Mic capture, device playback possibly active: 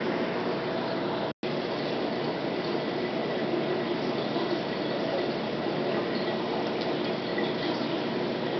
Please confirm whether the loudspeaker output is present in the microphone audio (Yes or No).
No